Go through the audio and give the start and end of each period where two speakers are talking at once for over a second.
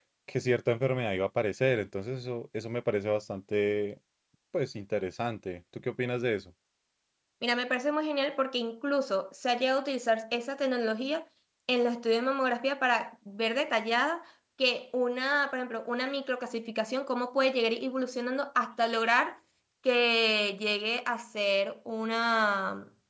none

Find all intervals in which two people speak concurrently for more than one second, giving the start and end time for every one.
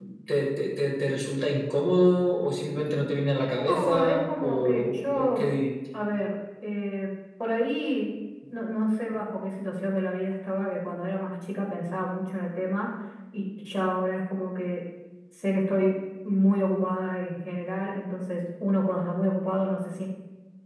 3.7-5.5

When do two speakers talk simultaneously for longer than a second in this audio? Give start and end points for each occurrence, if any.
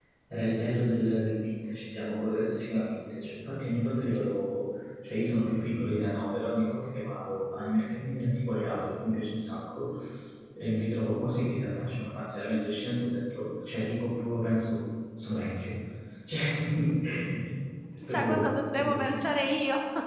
18.1-19.3

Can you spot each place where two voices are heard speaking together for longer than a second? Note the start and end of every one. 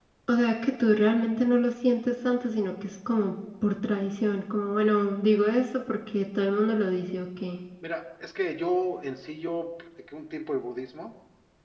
none

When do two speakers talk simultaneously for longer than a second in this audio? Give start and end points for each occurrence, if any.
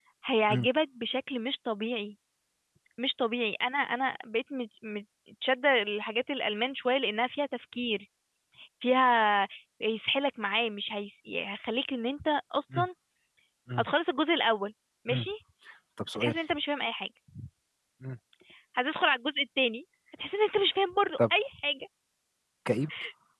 none

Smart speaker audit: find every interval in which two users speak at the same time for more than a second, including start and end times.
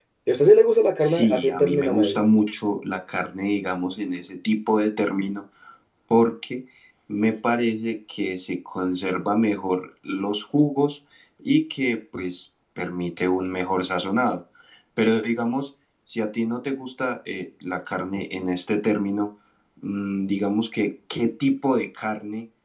1.0-2.2

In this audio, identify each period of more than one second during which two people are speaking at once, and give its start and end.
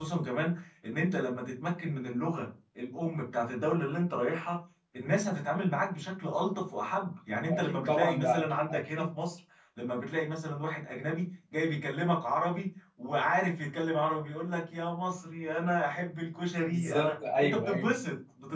7.5-9.1, 16.6-17.9

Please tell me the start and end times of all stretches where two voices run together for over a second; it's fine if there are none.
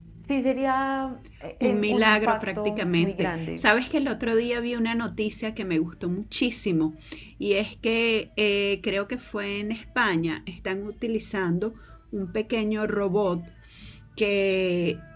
1.6-3.7

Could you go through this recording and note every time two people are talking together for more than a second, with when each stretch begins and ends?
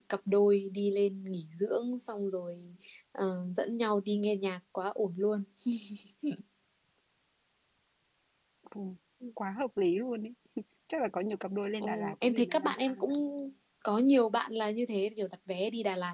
11.8-13.1

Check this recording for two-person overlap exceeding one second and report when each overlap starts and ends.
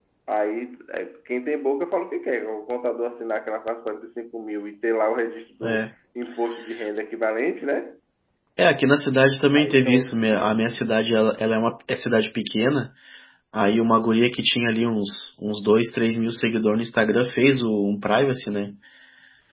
9.6-10.8

